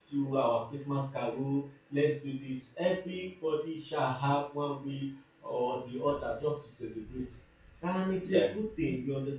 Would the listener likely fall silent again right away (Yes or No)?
Yes